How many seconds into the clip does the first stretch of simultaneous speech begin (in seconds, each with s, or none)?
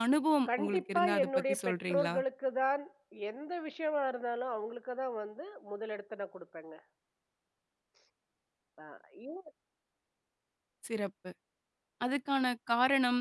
0.6 s